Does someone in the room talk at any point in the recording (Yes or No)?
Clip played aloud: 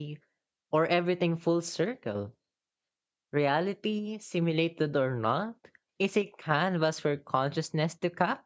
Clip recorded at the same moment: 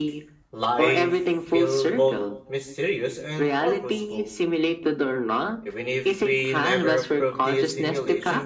Yes